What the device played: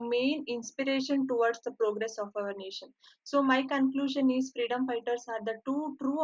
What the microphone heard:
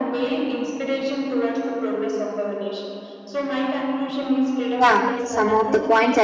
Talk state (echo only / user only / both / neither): both